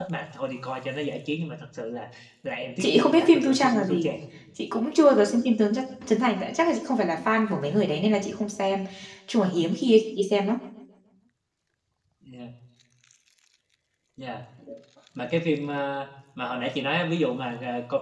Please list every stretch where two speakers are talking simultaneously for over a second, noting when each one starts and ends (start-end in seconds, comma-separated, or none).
2.8-4.1